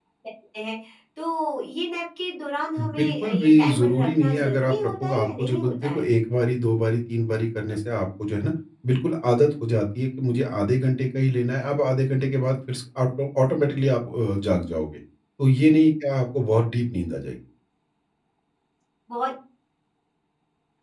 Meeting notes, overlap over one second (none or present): present